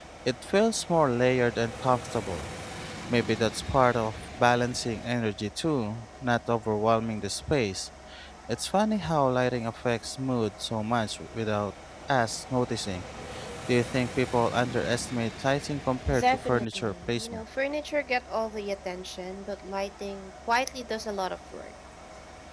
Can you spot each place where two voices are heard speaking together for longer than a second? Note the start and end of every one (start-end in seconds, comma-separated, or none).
16.2-17.4